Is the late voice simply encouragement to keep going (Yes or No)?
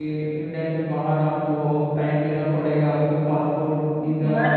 No